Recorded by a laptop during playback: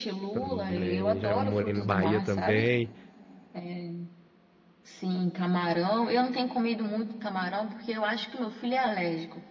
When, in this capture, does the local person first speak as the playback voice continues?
0.3 s

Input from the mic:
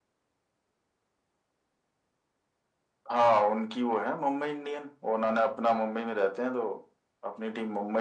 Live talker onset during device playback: none

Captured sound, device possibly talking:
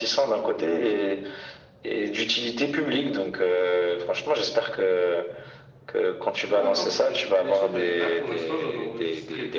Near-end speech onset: 6.4 s

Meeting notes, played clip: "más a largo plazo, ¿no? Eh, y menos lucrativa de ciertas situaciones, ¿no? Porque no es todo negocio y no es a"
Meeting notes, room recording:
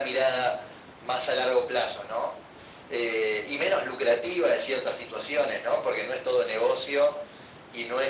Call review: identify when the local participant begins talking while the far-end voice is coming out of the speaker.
none

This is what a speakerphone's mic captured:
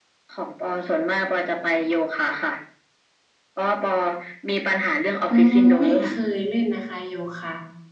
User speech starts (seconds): 5.3 s

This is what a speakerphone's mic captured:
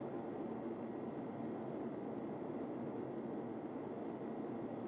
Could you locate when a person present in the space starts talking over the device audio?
none

